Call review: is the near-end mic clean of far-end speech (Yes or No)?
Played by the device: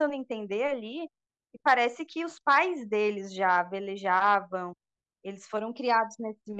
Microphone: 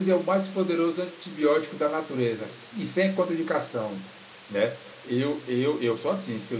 Yes